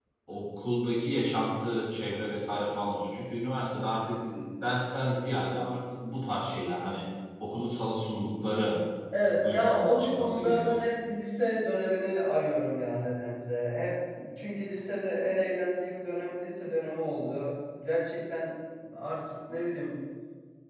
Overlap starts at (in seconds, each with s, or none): 9.4 s